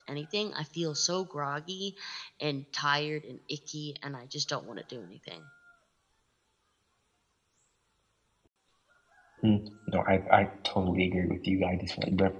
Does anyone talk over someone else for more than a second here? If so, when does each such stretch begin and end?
none

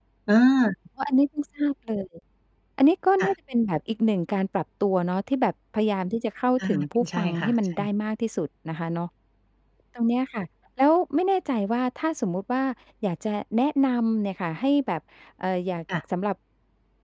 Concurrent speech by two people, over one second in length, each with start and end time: 6.6-7.9

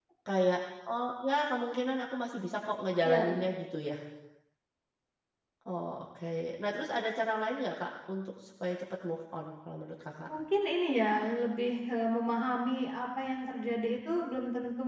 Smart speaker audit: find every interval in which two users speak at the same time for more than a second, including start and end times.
none

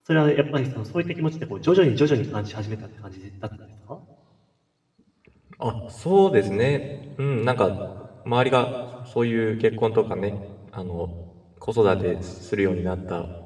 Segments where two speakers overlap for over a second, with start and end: none

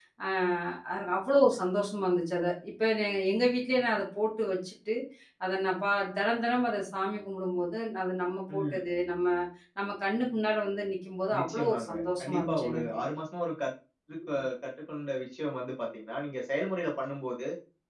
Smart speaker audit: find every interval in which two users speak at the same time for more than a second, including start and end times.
11.4-12.8

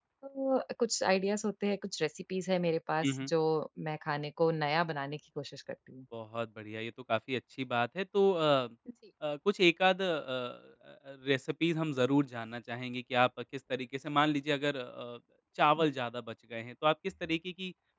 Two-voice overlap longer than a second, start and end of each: none

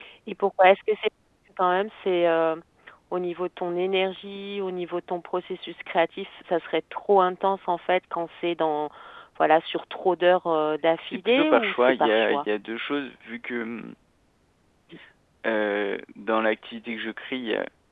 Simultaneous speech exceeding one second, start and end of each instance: 11.0-12.4

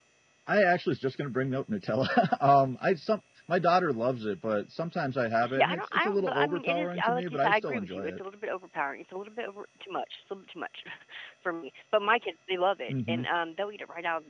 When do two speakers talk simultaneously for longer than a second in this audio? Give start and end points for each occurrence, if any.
5.4-8.2

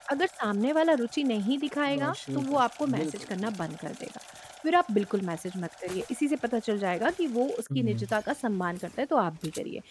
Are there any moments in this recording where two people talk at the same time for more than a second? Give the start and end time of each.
1.9-3.5

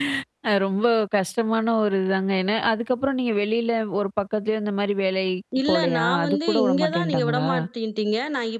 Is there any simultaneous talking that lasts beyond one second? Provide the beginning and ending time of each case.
5.7-7.5

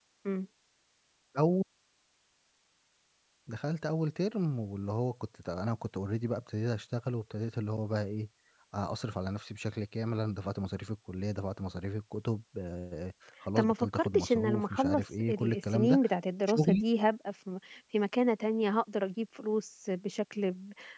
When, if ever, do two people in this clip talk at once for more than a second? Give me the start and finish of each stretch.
13.6-16.0

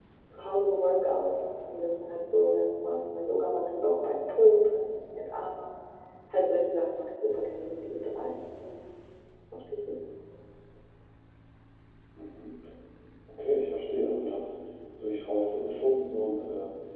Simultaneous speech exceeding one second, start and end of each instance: none

